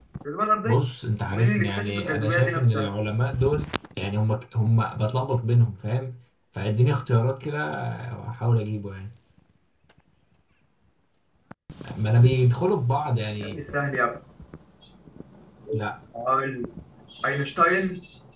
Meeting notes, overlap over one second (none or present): present